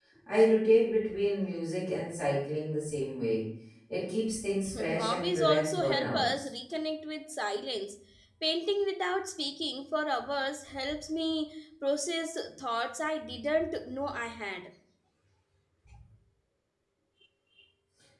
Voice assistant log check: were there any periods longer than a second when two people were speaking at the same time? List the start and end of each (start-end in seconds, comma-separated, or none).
4.7-6.5